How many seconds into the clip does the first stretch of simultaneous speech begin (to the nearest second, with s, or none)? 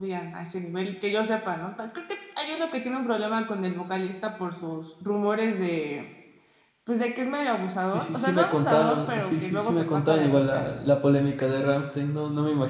8 s